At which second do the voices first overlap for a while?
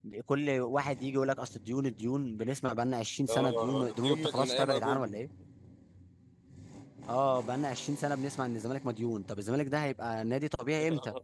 3.3 s

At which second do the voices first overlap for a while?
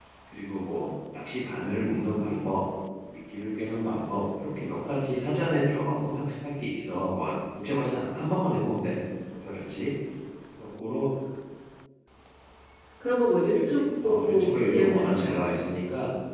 13.5 s

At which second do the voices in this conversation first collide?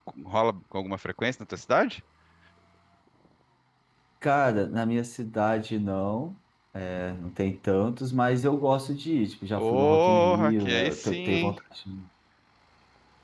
9.6 s

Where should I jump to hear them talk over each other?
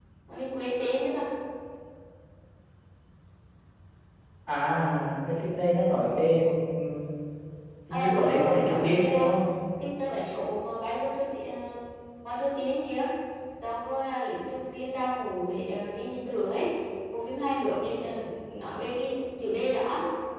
7.9 s

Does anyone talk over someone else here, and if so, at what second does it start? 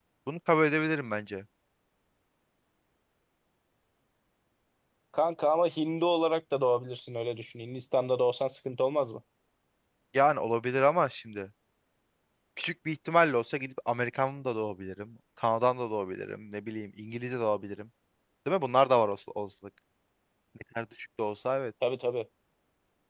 none

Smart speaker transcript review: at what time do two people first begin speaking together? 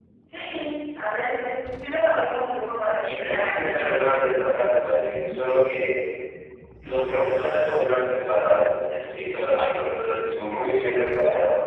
3.0 s

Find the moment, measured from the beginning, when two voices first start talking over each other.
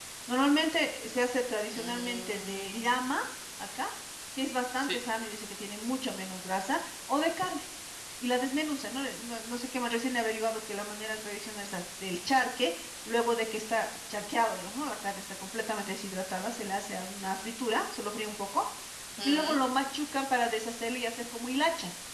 1.7 s

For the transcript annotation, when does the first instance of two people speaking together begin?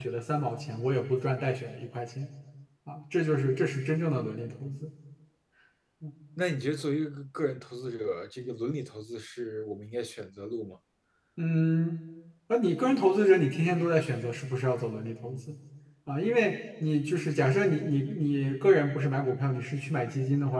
none

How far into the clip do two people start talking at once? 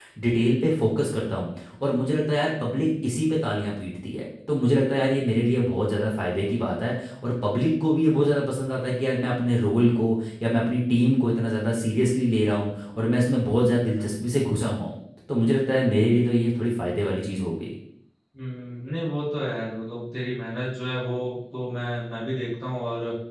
none

